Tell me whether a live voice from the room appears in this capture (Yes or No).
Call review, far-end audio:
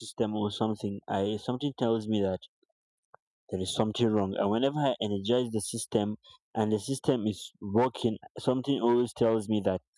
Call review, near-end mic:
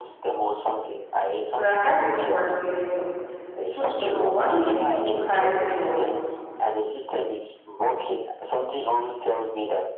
Yes